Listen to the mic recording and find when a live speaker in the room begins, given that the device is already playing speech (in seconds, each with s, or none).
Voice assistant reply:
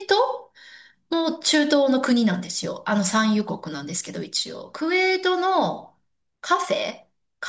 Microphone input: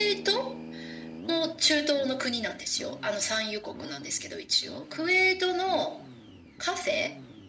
none